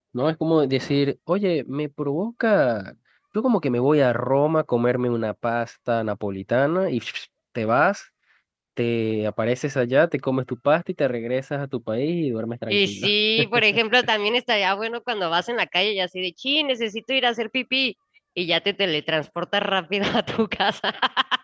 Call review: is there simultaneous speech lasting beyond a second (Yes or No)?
No